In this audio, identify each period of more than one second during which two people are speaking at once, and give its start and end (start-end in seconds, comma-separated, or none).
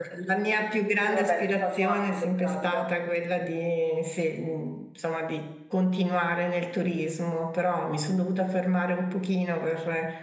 0.9-2.9